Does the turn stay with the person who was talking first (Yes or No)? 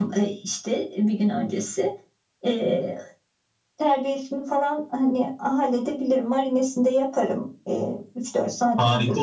No